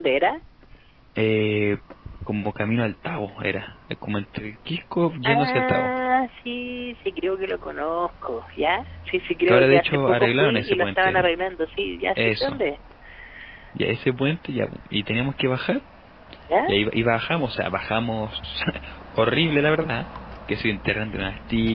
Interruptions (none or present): present